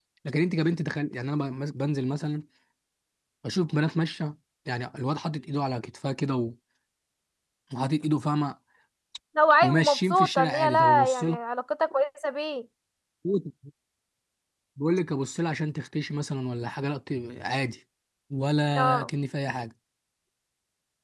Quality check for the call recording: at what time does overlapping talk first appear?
9.6 s

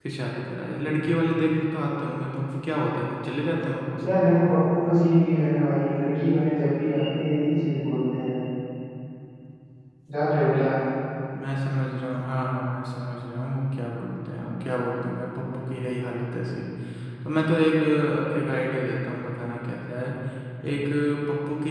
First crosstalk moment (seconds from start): none

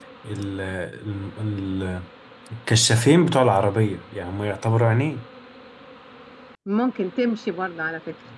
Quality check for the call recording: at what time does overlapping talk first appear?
none

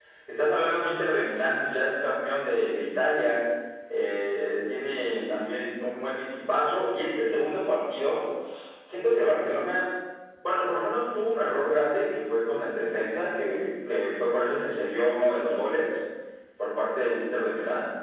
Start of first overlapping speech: none

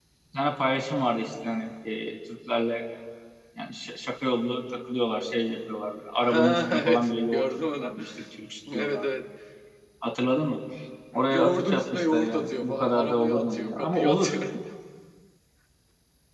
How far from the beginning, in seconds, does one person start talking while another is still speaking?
6.2 s

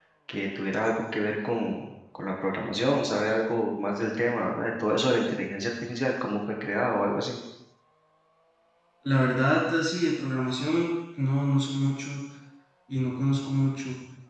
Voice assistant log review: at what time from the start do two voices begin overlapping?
none

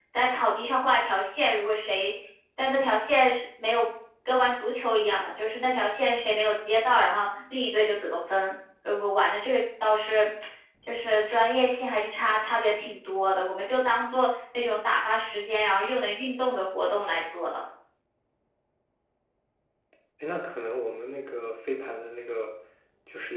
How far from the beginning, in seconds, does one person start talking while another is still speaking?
none

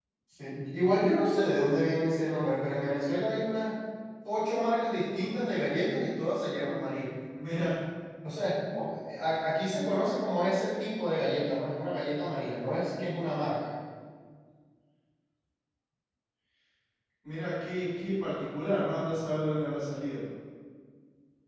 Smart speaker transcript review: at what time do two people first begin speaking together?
none

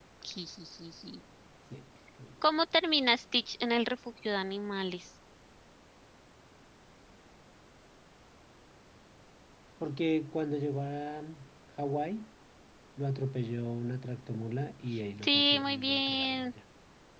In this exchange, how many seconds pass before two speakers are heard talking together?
15.2 s

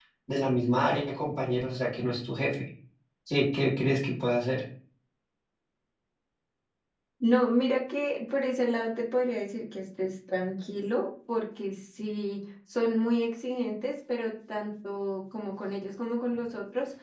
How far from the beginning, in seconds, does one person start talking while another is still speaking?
none

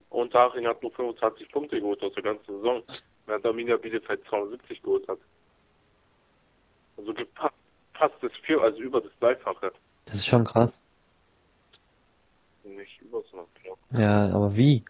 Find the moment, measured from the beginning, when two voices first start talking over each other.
none

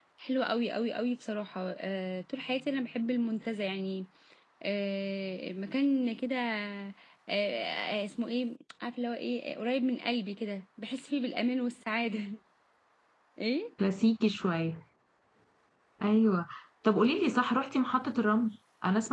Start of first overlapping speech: none

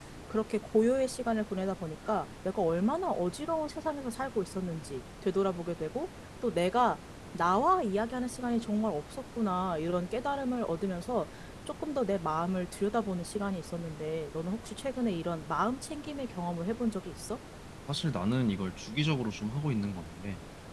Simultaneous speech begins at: none

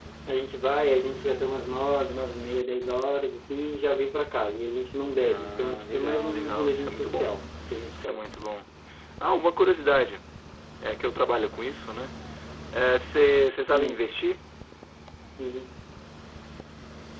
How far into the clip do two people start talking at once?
5.2 s

